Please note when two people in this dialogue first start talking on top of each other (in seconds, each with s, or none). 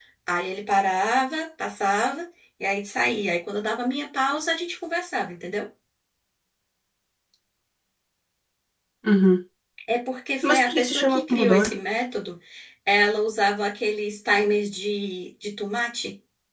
10.4 s